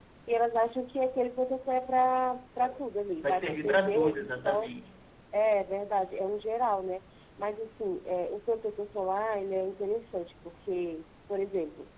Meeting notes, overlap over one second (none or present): present